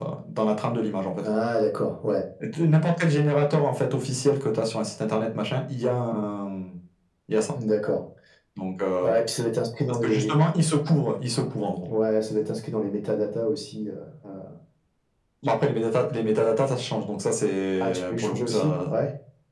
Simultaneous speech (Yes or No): Yes